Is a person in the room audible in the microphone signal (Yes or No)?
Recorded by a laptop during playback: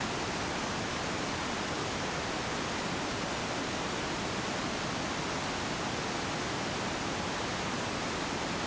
No